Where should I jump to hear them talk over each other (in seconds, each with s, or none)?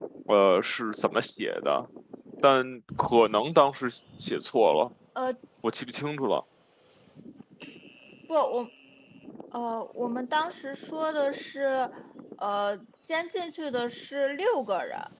none